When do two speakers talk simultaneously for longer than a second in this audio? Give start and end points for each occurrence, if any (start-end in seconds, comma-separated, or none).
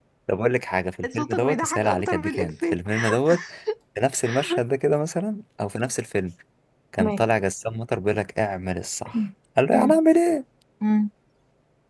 1.1-2.8